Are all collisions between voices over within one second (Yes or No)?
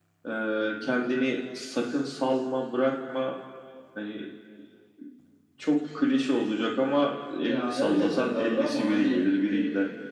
No